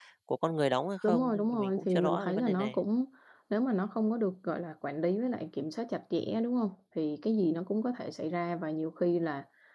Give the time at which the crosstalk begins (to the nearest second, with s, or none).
1 s